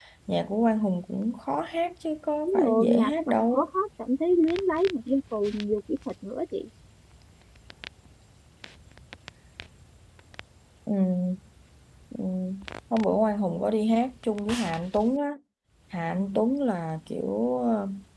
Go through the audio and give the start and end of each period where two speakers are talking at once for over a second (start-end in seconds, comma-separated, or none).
2.5-3.6